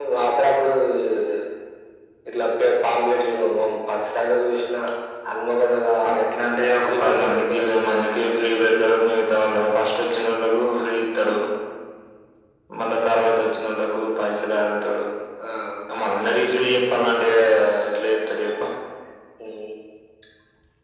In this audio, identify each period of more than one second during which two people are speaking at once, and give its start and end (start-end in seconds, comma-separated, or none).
6.8-8.4